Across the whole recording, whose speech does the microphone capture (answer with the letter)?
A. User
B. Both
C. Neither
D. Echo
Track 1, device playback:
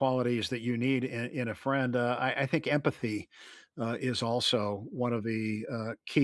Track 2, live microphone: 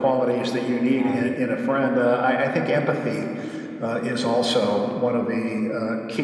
B